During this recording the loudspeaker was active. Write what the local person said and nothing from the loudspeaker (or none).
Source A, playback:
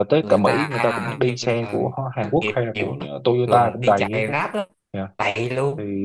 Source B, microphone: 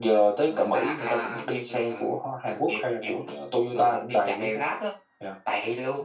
none